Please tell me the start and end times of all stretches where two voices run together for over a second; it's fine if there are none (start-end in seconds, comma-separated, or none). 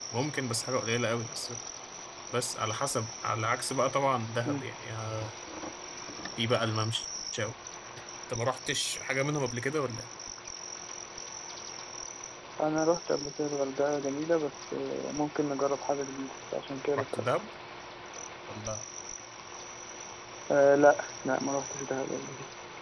none